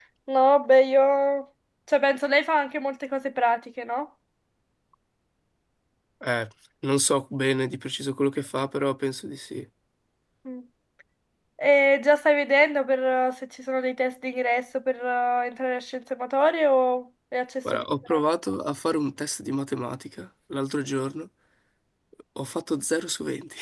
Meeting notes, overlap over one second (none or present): none